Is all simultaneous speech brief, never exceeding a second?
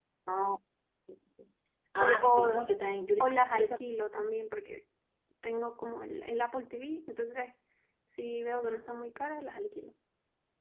No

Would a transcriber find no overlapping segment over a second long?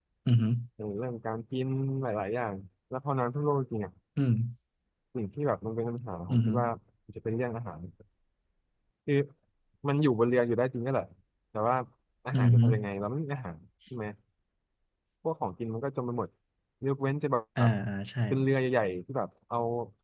Yes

